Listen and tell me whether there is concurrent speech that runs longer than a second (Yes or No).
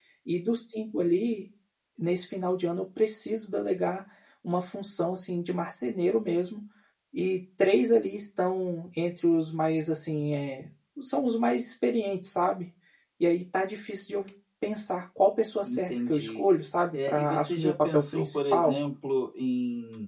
Yes